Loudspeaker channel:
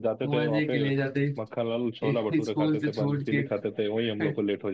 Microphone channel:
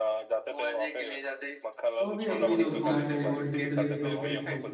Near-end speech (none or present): present